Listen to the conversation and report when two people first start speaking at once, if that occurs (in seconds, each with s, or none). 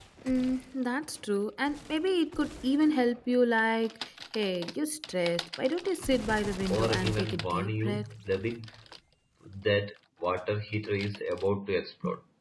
6.7 s